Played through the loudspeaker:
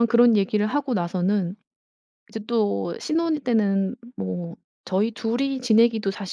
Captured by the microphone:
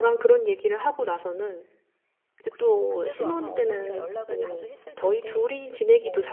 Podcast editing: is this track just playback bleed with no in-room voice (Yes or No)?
No